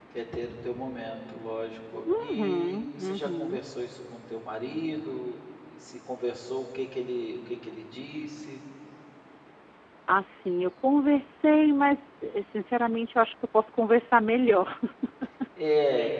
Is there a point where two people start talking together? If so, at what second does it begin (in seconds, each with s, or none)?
2.3 s